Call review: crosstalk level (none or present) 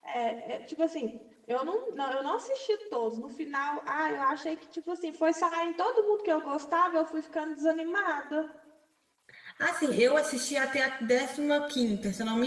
none